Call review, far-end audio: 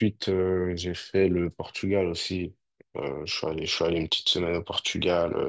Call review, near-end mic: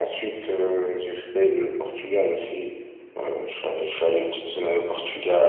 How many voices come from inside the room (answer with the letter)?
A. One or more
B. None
B